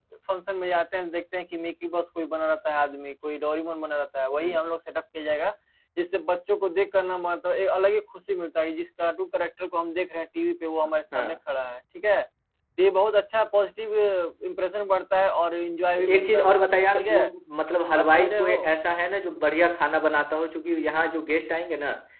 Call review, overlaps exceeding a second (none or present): present